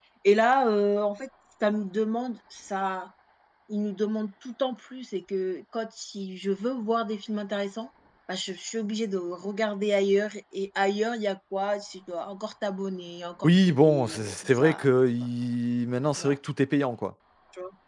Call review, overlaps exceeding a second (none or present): present